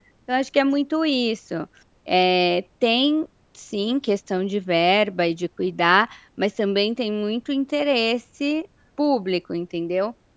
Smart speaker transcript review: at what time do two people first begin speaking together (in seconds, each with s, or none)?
none